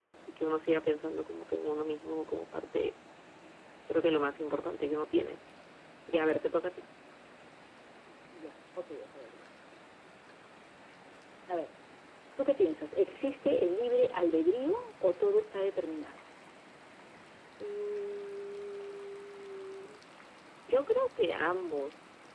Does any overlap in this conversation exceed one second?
No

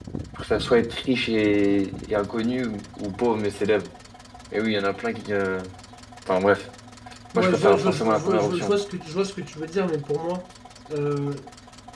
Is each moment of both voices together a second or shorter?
No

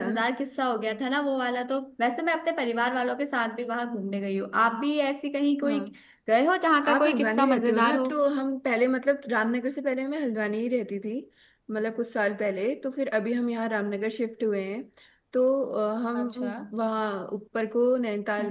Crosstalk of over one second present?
Yes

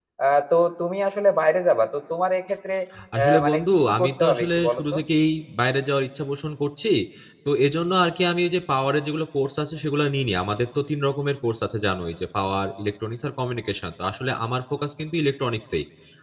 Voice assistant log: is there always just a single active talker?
No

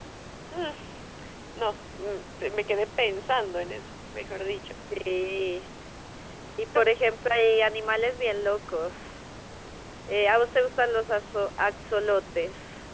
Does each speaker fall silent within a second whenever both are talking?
Yes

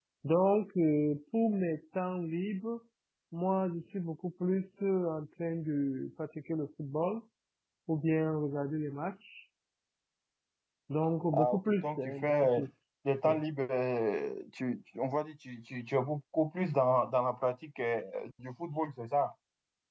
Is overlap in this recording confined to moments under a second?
No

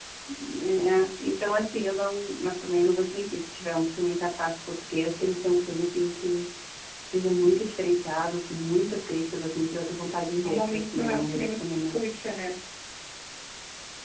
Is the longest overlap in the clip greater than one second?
Yes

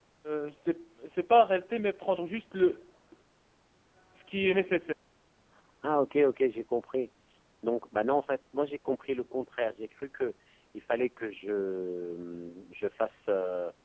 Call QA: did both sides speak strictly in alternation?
Yes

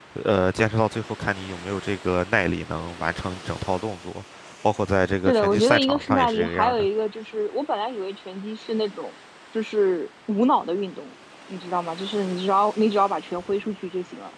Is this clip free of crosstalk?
No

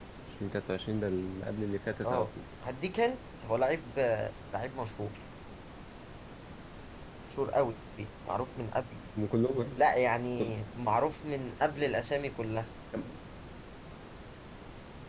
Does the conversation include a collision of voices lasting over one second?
No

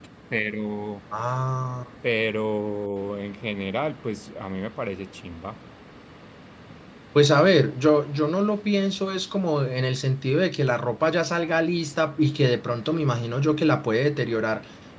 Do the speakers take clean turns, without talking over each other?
Yes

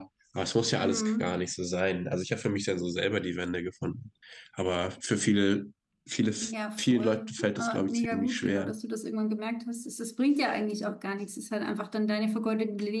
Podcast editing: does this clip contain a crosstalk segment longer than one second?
Yes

